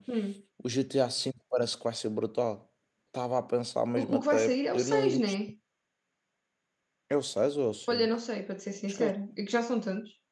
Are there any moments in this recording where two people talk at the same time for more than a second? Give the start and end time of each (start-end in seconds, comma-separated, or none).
4.0-5.2